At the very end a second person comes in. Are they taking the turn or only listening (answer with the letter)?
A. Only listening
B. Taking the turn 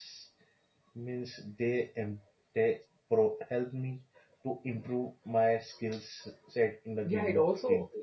B